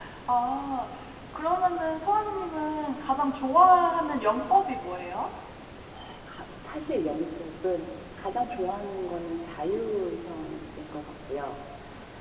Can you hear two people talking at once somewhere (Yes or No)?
No